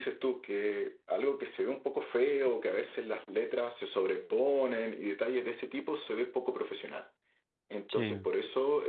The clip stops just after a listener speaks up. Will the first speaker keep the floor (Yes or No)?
Yes